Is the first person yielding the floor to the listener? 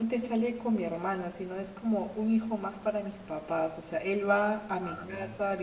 No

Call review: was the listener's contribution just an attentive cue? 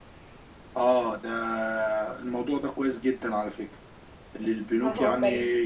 Yes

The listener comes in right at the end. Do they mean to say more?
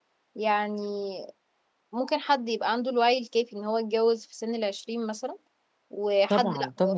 No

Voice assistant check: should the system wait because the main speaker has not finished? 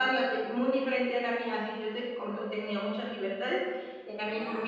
Yes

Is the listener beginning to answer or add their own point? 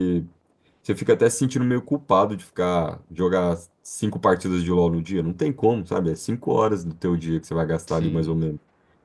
No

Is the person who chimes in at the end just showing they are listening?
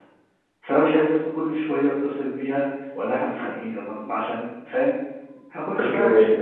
Yes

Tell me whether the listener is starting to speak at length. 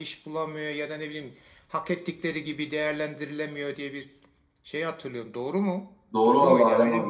Yes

